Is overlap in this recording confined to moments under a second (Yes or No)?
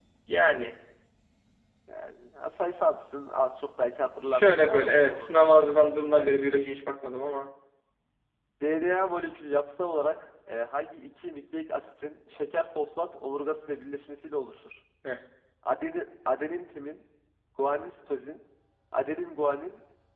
No